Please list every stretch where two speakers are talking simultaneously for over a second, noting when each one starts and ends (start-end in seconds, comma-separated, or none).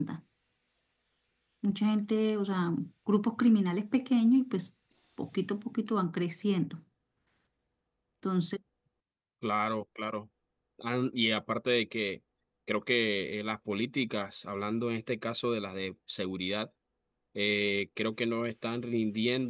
none